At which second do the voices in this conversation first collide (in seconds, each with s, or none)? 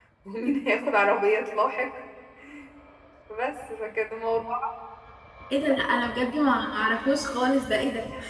none